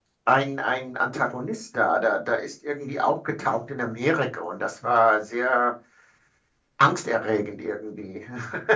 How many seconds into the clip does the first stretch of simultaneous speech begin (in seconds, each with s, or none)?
none